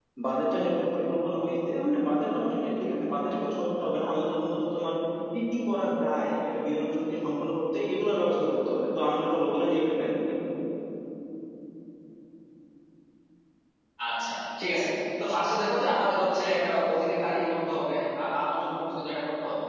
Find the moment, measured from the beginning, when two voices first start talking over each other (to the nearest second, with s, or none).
none